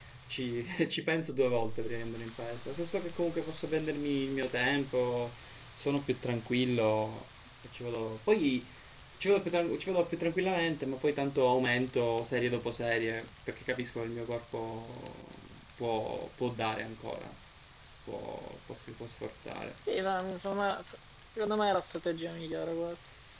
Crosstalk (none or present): none